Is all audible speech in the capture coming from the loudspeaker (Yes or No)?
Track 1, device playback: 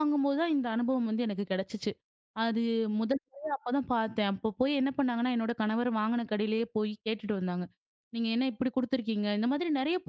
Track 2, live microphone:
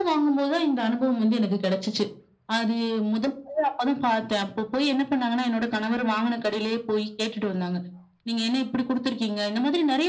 Yes